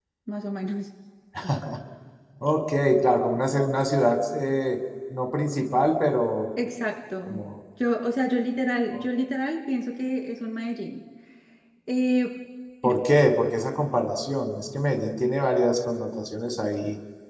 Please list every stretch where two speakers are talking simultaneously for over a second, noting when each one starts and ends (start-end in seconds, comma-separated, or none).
none